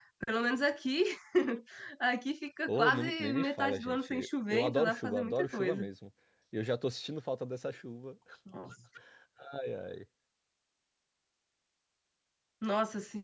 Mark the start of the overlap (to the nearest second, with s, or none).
3 s